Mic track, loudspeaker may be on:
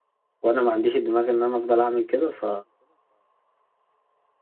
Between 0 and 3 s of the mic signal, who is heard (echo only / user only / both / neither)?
user only